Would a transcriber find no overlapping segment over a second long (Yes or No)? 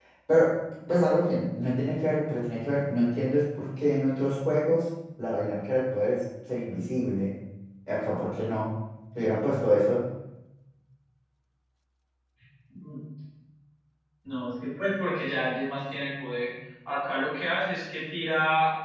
Yes